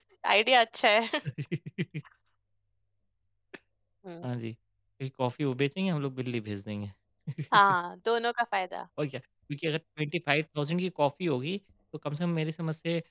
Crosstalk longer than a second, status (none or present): none